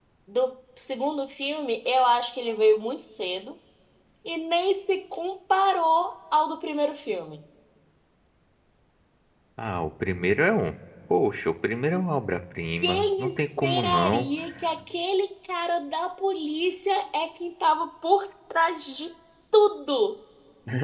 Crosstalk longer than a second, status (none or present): present